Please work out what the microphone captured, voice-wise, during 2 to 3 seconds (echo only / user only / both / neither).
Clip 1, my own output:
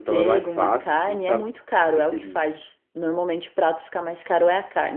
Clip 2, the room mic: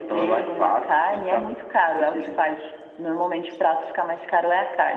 echo only